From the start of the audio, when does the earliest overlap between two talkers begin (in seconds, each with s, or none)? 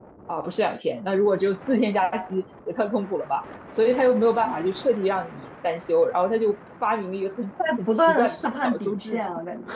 7.6 s